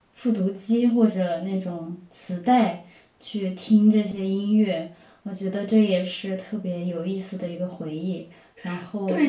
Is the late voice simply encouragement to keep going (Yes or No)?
No